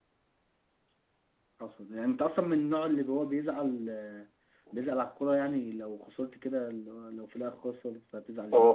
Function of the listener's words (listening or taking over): taking over